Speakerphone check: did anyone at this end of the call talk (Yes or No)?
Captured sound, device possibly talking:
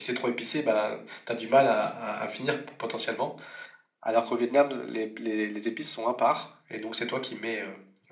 No